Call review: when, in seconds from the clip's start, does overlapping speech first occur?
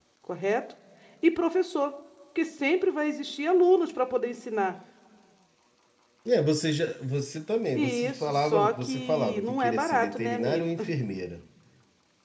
7.8 s

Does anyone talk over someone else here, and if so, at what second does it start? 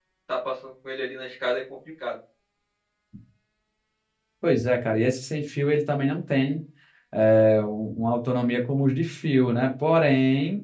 none

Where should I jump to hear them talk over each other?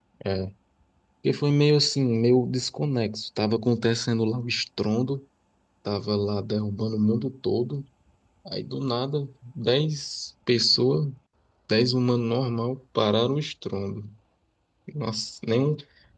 none

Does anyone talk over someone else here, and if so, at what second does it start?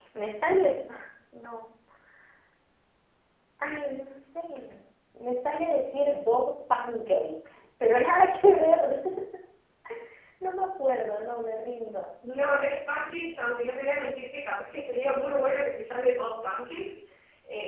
none

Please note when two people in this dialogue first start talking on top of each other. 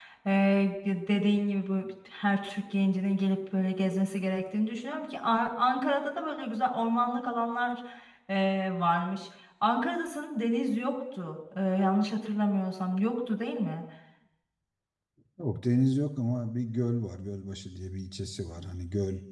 none

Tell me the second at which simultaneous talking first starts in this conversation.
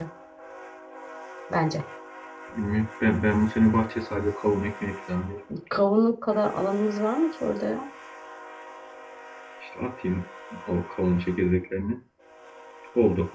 none

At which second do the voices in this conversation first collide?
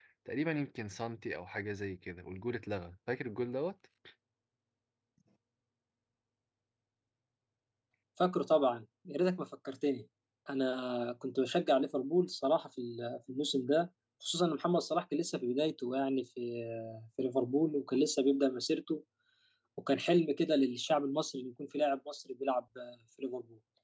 none

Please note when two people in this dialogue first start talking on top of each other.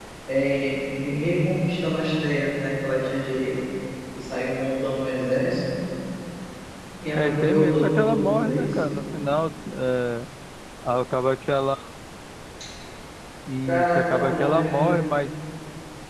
7.2 s

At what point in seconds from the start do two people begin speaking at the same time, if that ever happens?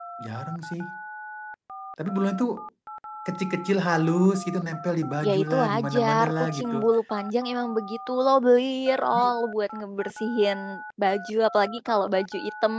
5.2 s

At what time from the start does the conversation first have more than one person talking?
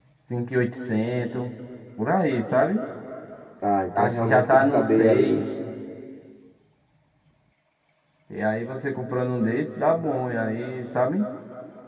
4.0 s

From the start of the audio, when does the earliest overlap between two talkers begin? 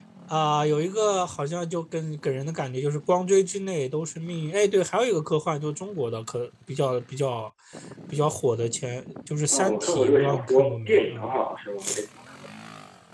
9.5 s

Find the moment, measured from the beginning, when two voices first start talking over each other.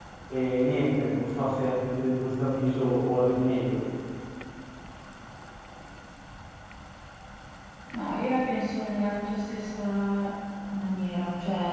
none

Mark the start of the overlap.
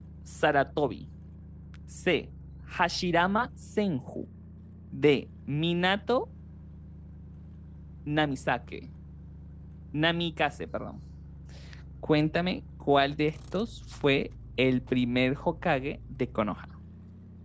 none

